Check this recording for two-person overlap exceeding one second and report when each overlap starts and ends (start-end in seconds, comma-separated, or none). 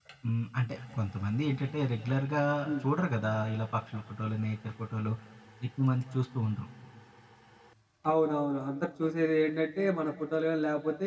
none